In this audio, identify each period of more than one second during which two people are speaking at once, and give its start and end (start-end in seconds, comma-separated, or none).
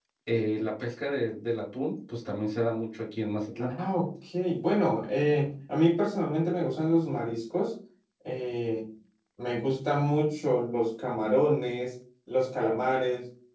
none